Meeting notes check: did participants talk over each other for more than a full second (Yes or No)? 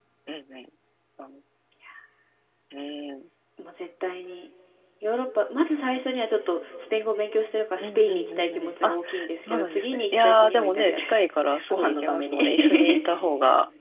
Yes